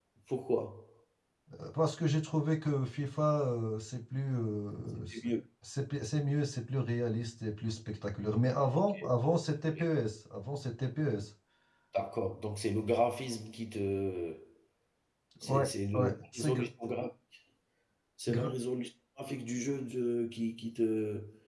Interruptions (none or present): present